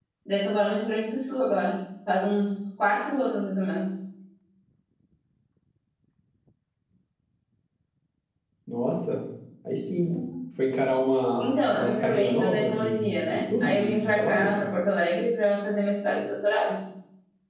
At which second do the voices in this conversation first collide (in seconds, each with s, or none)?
11.4 s